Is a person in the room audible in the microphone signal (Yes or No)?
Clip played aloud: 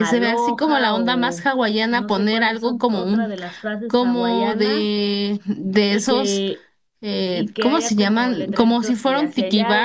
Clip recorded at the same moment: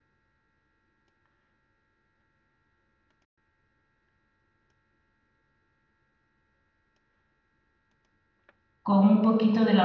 Yes